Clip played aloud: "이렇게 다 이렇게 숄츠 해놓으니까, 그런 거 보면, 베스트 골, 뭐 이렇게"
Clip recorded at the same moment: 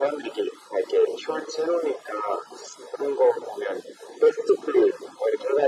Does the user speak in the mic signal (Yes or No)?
No